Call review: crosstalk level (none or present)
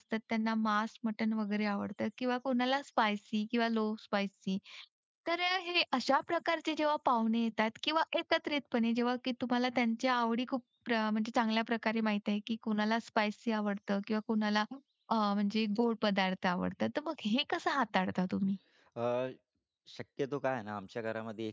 none